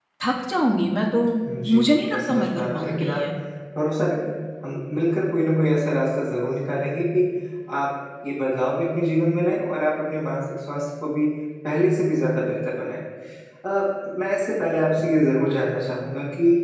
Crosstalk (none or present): present